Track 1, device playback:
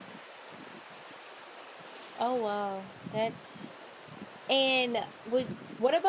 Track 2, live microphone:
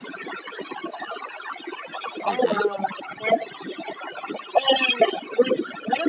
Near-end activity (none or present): present